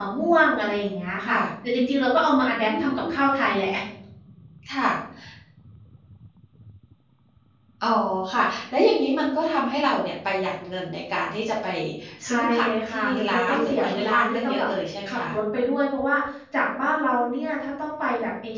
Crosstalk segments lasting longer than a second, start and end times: 12.3-14.7

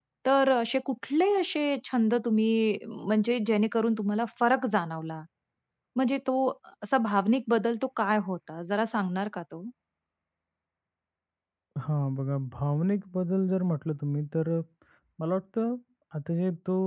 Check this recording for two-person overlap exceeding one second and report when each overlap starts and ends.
none

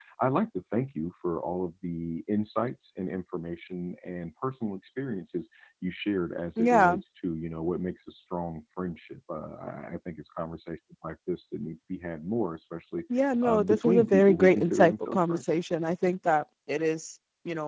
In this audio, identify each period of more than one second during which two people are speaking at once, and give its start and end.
13.4-15.4

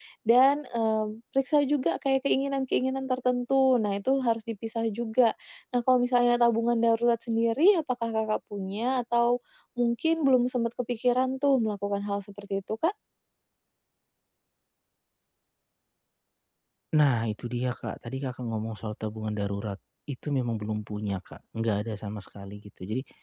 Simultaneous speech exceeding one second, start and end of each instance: none

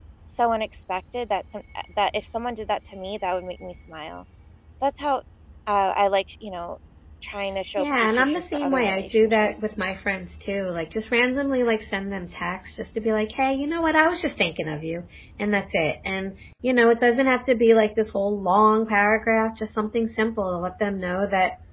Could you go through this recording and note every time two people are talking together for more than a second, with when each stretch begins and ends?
7.8-9.5

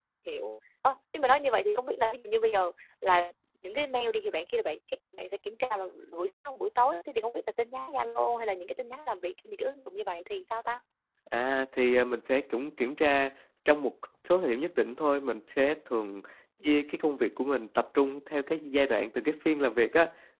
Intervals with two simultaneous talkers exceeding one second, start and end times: none

